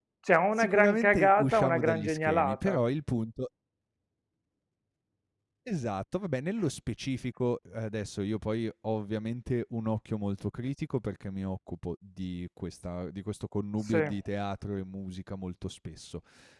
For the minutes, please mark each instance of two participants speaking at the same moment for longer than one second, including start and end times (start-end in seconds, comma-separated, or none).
0.6-2.8